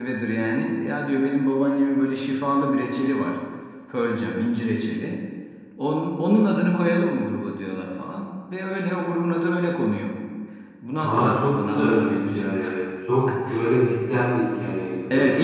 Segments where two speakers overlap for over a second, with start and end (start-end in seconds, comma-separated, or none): 11.0-12.6